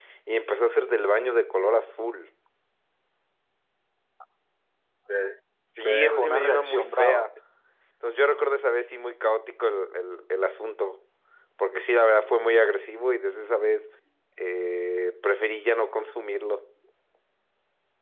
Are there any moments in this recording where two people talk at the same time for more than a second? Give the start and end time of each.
5.8-7.3

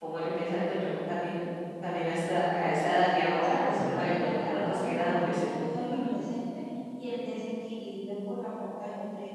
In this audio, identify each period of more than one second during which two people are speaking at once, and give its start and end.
3.4-5.5

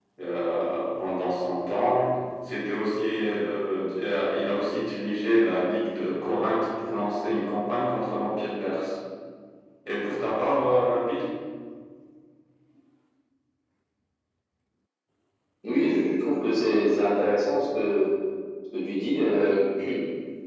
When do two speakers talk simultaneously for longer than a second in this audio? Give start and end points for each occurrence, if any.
none

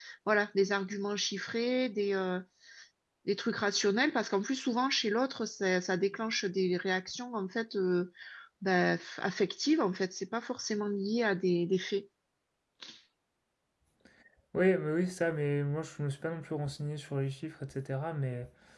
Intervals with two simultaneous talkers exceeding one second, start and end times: none

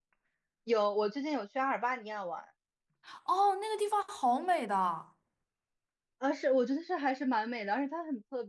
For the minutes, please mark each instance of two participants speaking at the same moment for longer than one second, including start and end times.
none

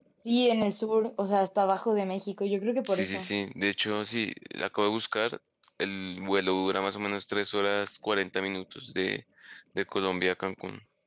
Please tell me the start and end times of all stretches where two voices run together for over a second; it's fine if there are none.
none

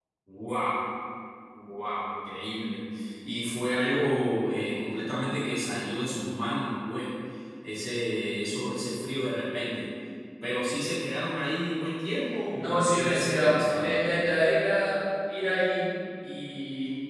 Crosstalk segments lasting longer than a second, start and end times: 12.6-14.0

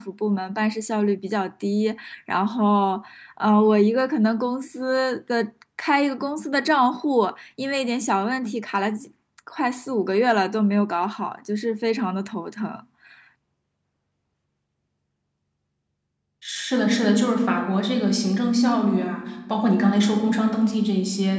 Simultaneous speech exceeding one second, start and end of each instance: none

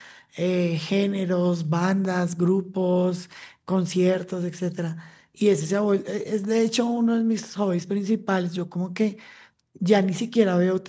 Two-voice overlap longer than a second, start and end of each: none

